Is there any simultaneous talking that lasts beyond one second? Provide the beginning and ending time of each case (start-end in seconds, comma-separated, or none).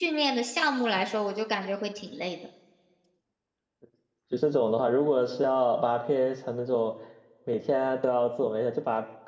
none